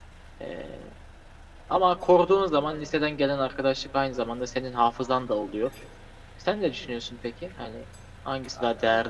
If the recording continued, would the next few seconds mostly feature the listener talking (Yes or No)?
Yes